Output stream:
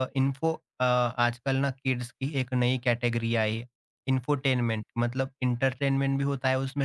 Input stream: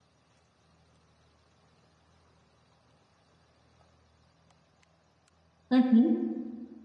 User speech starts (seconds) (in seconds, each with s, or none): 5.7 s